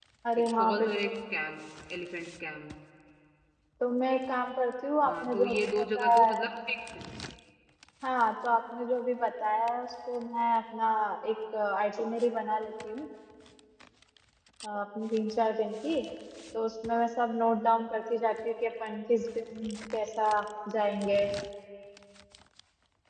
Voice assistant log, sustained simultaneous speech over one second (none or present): present